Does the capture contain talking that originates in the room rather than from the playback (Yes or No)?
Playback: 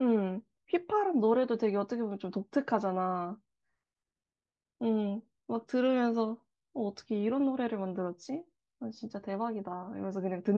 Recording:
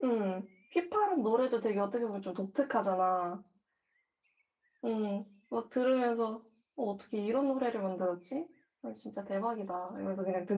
No